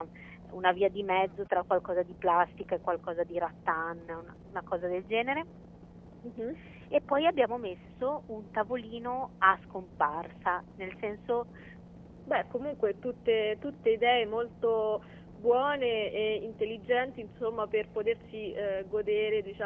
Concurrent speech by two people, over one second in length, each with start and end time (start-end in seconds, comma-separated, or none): none